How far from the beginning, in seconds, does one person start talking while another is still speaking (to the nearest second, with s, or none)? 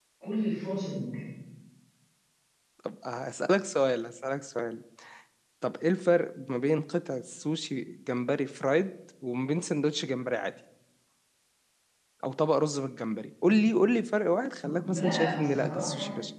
15 s